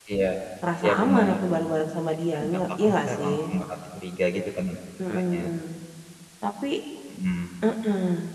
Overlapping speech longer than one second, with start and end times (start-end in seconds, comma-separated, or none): 2.3-3.5